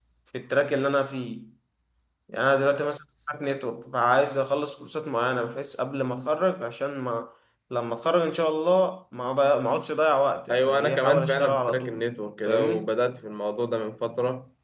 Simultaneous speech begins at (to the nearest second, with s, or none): 10 s